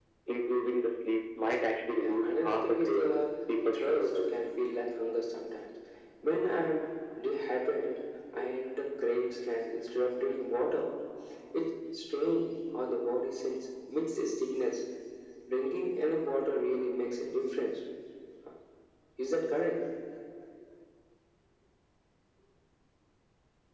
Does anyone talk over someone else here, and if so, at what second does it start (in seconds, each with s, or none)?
2.0 s